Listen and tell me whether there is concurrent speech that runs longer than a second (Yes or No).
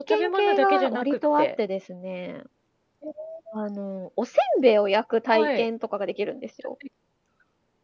Yes